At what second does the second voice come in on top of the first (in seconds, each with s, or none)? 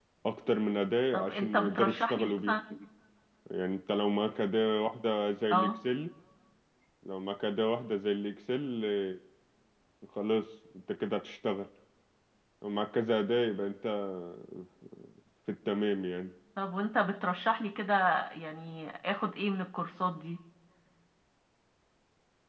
1.1 s